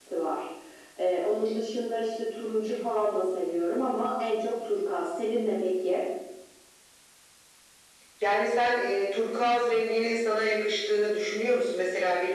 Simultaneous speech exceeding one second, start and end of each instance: none

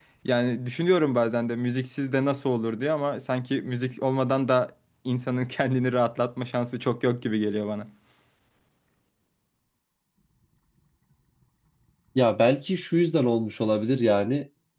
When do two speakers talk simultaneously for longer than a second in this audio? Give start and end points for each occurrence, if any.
none

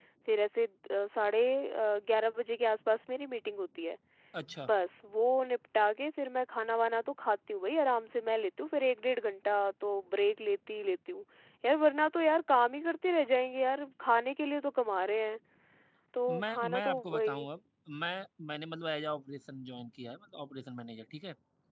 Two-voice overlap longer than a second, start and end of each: 16.3-17.5

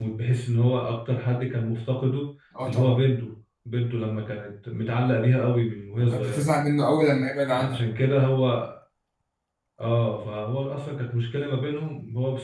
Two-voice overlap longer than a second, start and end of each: none

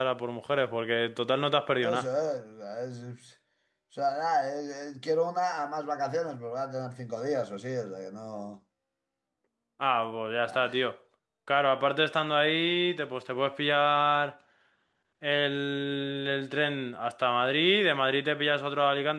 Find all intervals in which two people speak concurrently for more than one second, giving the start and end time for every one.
none

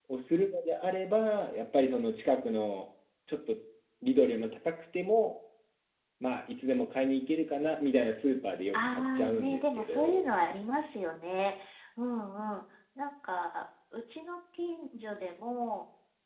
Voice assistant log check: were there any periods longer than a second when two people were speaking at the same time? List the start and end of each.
8.7-10.3

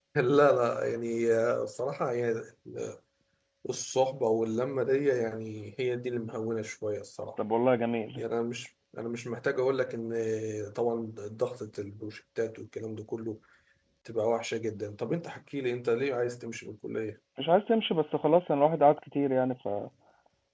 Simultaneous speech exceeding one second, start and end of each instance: none

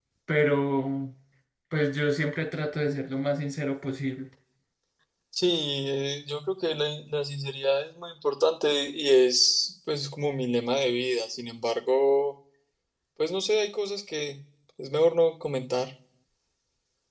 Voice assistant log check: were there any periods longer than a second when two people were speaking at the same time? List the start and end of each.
none

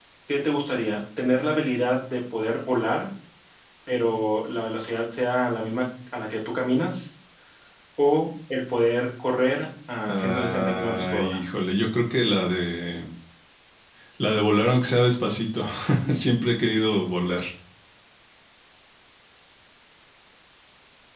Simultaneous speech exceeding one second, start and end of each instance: 10.1-11.4

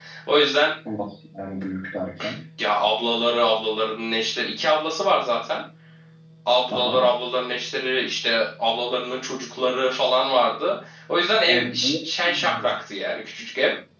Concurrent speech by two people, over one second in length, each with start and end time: none

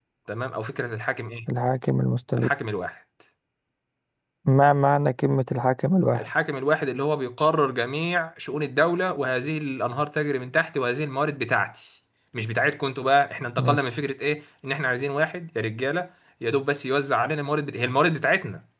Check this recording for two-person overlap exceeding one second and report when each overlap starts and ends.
none

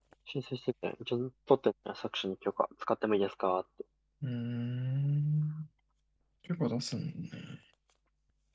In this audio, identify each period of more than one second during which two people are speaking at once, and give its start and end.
none

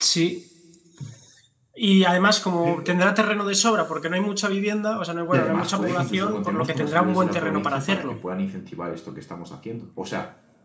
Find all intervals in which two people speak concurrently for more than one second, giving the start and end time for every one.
5.3-8.2

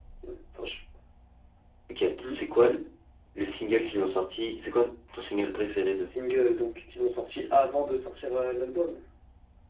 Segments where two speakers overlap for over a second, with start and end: none

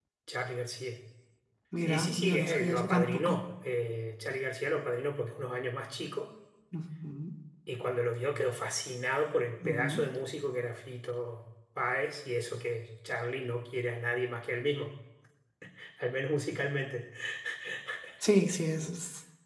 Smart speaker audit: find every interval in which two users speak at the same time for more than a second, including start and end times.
1.9-3.4

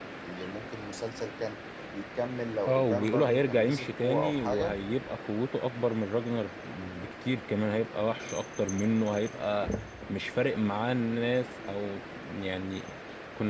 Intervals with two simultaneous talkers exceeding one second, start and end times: 2.7-4.8

